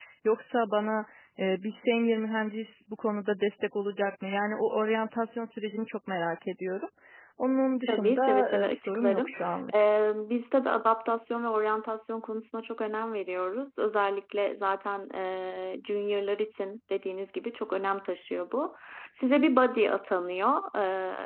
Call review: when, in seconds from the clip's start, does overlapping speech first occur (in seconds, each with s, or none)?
7.9 s